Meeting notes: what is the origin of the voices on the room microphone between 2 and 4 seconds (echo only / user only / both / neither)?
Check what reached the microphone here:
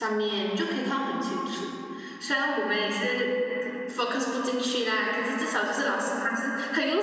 user only